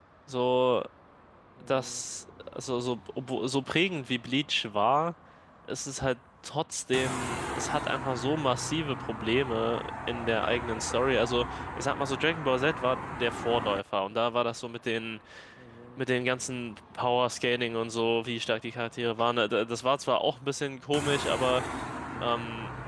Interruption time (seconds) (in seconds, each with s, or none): none